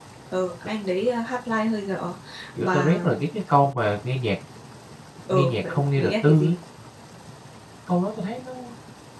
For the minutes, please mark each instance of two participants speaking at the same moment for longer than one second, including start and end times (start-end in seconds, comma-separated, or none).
5.3-6.6